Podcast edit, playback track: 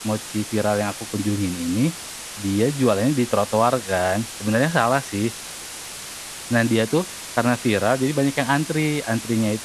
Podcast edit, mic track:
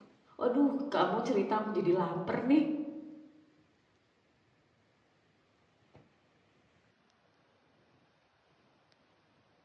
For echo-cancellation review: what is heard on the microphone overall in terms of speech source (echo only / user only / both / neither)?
user only